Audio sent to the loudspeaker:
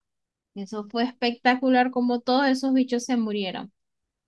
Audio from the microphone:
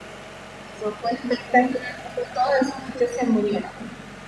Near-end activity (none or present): none